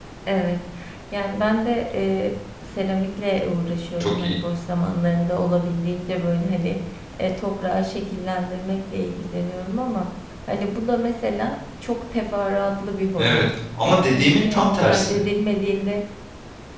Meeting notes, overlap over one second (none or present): present